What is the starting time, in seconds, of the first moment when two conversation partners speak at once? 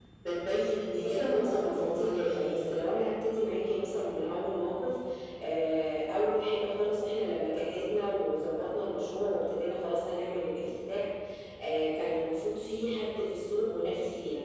1.0 s

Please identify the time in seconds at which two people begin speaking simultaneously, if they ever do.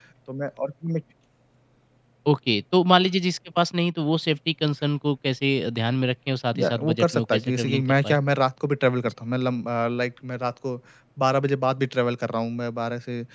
6.5 s

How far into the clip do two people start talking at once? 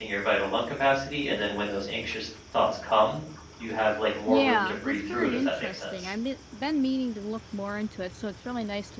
4.3 s

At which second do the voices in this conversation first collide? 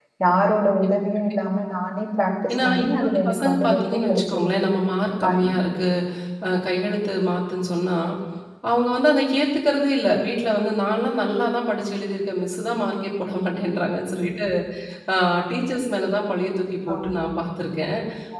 2.5 s

